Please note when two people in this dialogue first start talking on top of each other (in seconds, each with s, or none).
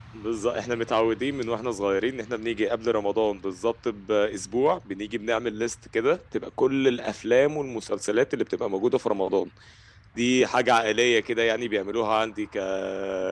none